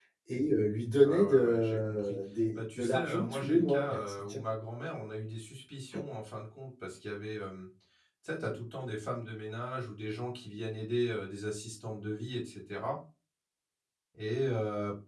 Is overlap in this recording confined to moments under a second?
No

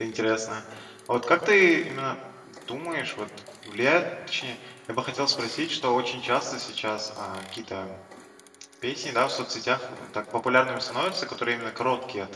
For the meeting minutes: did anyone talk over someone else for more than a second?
No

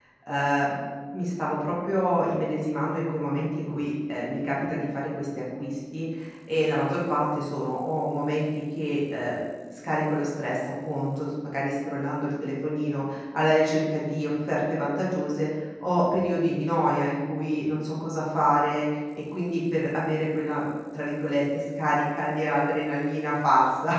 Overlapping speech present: No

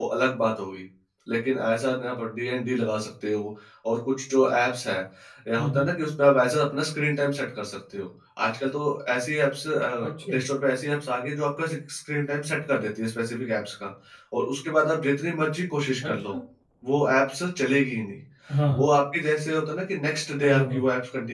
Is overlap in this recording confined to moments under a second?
Yes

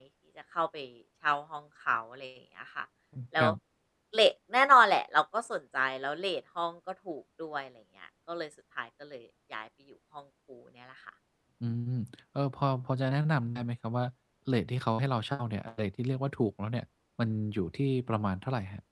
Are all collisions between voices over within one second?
Yes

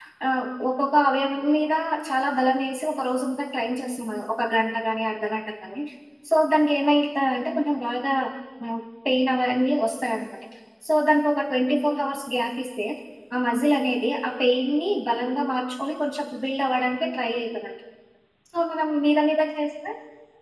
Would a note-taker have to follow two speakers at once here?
No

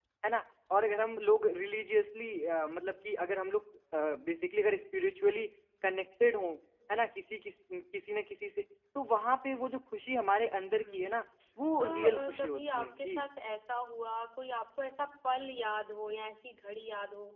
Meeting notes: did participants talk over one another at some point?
Yes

